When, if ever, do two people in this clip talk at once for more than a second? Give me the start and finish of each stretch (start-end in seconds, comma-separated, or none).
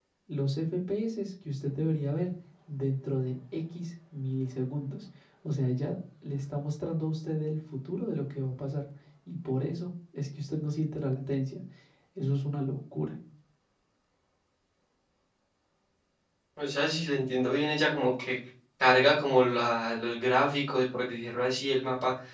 none